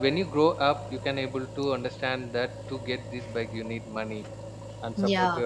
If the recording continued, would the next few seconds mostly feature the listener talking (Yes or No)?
No